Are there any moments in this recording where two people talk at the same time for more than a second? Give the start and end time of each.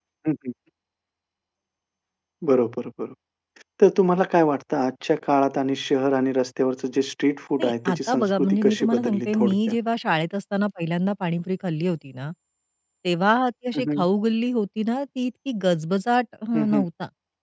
7.6-9.8

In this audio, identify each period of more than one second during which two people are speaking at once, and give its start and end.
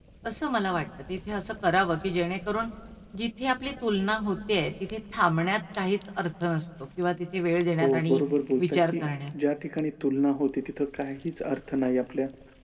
none

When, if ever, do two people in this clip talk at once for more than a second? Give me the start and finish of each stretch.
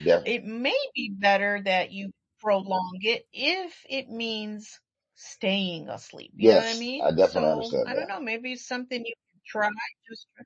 6.4-8.1

